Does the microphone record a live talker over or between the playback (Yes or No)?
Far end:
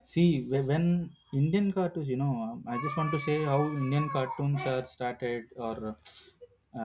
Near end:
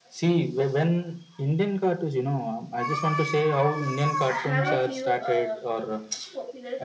Yes